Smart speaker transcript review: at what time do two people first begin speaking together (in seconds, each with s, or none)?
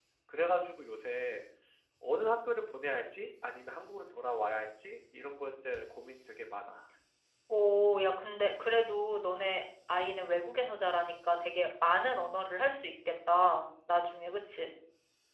none